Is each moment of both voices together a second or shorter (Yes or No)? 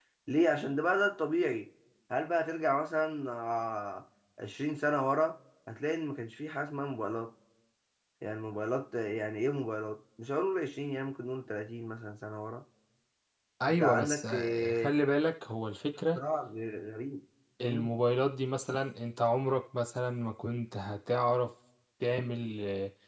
No